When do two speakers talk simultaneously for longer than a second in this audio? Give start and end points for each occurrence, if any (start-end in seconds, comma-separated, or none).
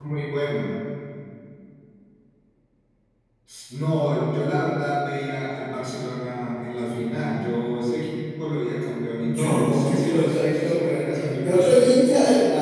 9.2-11.9